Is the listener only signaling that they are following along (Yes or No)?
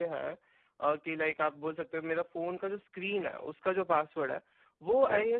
Yes